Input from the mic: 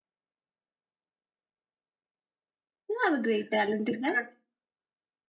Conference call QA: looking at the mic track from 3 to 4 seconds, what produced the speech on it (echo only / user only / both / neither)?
user only